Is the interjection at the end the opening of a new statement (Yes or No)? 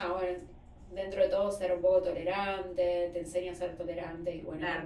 Yes